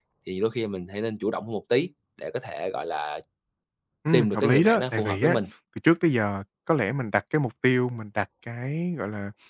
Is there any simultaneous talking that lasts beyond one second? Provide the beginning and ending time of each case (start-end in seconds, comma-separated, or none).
4.1-5.4